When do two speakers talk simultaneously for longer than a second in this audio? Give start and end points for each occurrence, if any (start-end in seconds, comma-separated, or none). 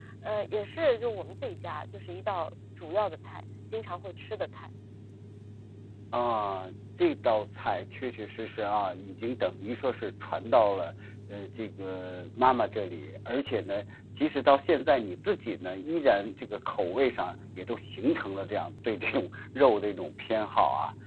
none